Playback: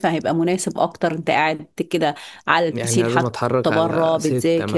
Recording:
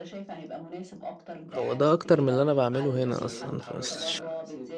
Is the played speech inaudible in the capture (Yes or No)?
No